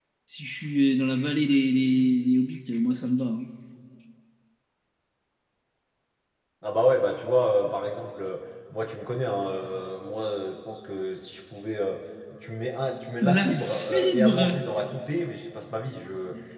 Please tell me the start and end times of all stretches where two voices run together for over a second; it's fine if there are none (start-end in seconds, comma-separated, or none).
13.2-14.6